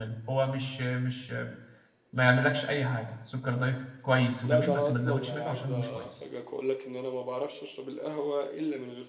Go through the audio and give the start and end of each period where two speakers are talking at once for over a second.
4.4-6.1

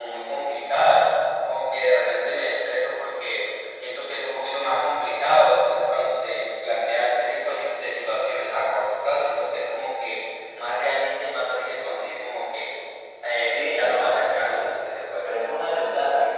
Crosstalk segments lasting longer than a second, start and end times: 13.4-14.8

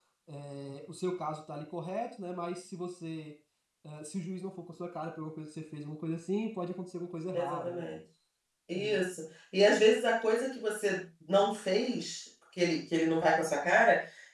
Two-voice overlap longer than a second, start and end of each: none

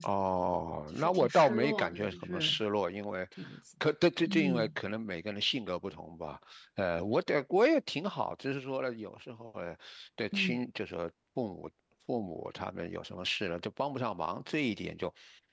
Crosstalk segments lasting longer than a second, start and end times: 0.9-2.6

